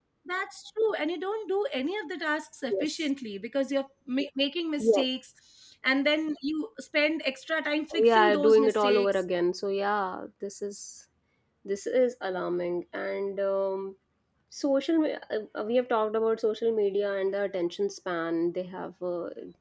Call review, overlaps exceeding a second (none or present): present